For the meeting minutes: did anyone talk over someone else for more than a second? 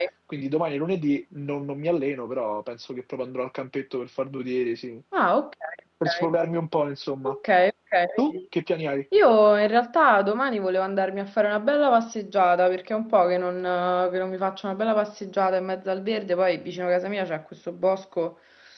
No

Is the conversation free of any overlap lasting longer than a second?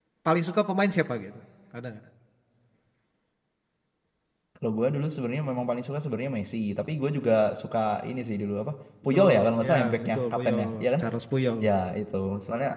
No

